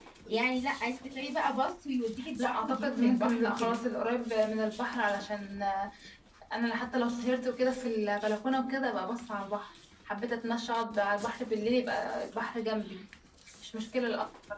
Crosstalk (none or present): present